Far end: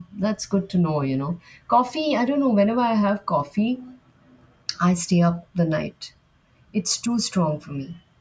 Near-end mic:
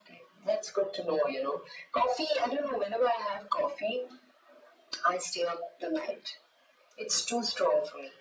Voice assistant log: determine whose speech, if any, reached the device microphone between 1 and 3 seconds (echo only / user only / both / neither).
echo only